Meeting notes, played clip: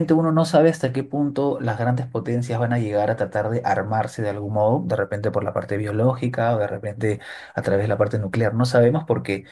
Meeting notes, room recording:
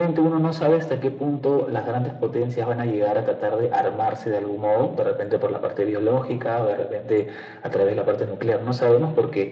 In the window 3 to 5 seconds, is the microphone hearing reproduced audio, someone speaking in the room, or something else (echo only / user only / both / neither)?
echo only